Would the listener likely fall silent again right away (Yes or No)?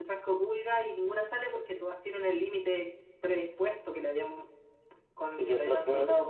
No